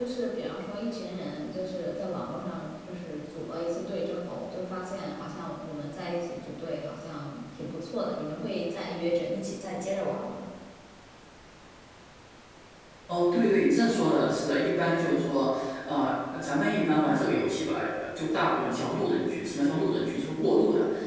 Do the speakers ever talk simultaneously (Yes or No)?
No